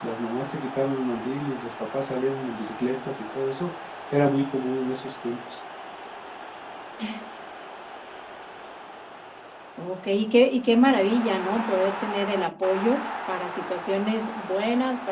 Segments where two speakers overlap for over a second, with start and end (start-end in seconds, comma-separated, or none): none